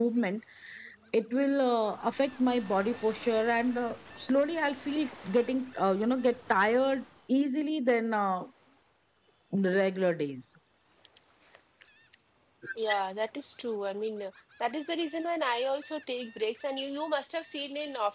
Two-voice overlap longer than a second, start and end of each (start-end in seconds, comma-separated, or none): none